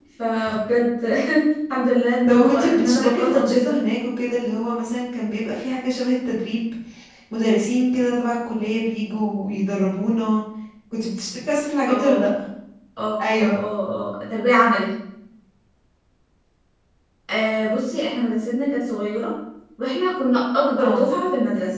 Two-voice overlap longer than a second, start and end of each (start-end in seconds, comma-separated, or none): 2.3-3.8